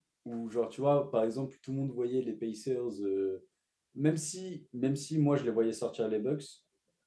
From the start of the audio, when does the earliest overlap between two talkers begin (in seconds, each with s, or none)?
none